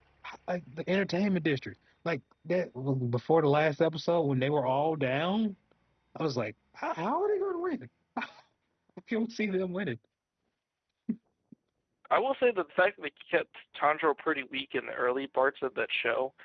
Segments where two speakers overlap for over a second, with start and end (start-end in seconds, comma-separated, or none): none